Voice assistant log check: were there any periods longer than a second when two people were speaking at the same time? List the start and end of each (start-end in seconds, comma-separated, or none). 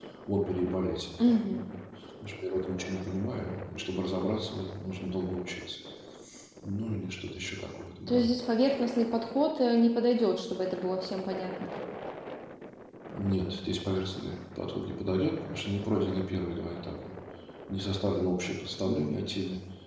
none